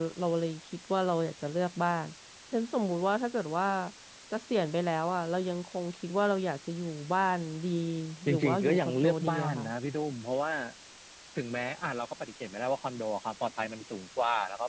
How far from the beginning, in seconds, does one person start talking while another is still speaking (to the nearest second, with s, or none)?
8 s